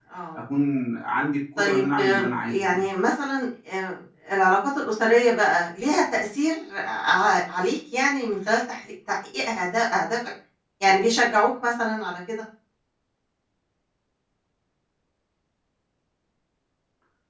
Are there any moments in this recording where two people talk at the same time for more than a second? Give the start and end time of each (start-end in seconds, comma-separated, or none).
1.6-2.8